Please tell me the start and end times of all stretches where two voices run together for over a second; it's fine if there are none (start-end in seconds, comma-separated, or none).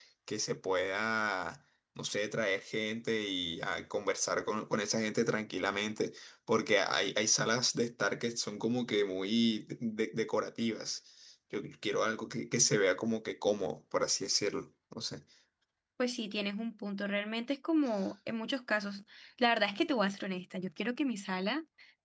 none